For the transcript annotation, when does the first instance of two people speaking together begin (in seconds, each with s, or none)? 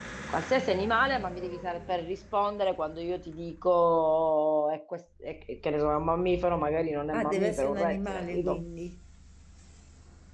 7.1 s